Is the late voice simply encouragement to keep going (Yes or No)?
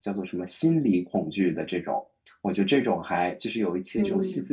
Yes